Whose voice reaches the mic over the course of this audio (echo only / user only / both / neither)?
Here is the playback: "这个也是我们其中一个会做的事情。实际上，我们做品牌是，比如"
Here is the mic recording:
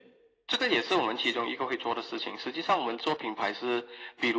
echo only